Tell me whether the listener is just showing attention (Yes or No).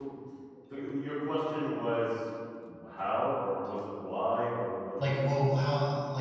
No